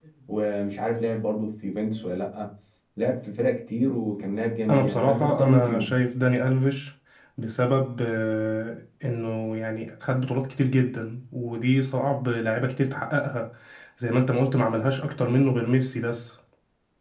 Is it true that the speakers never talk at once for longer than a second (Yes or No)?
No